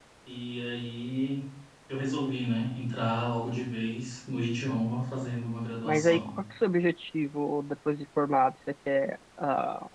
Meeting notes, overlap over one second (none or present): none